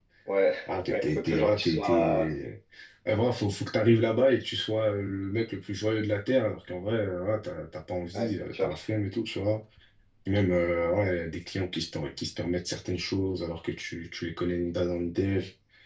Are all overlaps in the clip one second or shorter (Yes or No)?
No